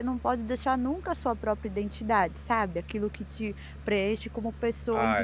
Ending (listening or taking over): taking over